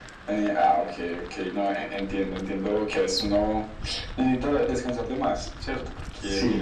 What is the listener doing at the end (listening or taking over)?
listening